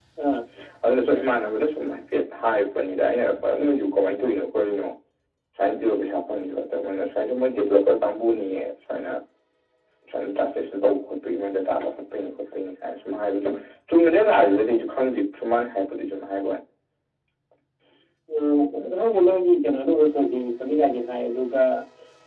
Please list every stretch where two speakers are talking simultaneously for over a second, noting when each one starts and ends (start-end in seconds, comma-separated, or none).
none